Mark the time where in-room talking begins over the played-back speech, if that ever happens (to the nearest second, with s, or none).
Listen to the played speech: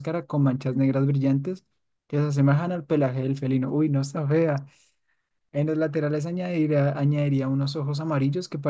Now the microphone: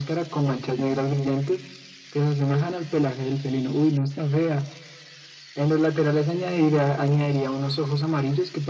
none